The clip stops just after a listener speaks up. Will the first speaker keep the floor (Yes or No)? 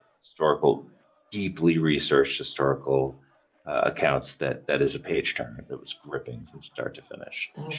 Yes